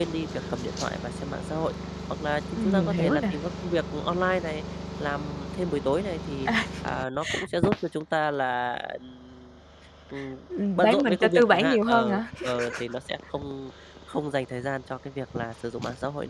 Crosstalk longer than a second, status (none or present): present